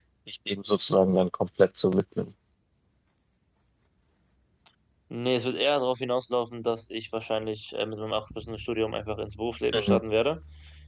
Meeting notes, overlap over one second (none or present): none